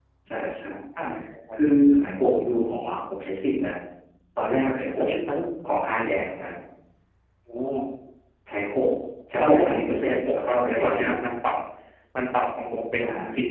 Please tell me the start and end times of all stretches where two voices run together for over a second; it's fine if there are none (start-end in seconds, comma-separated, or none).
9.4-11.1